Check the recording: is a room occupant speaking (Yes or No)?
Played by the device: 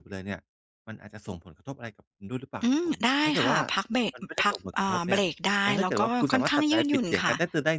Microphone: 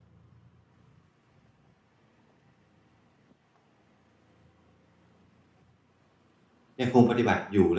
Yes